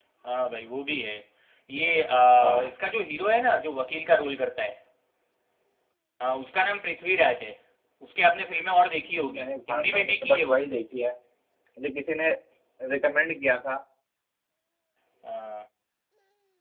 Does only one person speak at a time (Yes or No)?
No